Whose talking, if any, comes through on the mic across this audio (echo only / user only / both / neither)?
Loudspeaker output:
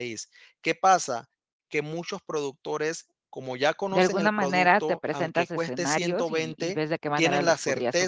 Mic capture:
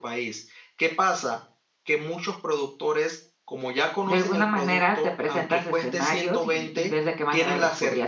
echo only